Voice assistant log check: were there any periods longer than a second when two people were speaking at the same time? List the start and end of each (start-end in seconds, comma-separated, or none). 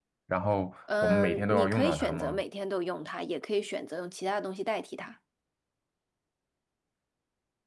1.0-2.4